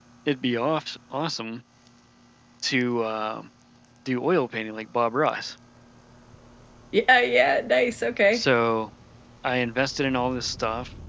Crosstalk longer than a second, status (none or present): none